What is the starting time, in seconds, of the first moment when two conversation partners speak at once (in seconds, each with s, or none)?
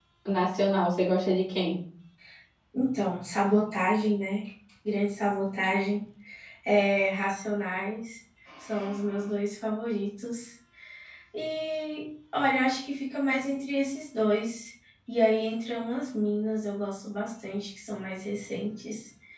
none